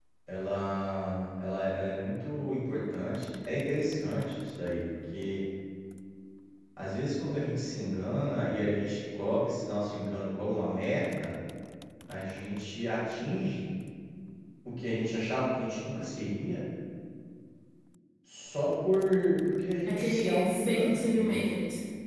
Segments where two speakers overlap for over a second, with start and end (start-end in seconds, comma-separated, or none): 19.8-21.4